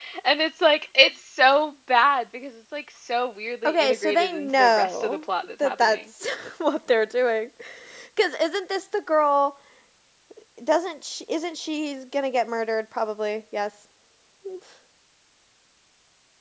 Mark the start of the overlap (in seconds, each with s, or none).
3.6 s